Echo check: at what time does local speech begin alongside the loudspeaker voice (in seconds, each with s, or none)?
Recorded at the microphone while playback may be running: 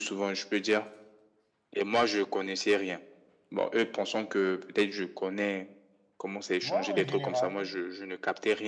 6.6 s